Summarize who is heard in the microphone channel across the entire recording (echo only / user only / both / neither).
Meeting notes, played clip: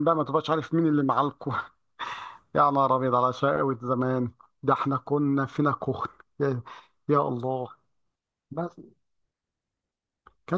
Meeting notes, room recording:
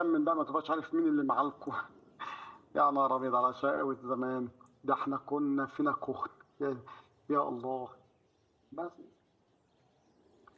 echo only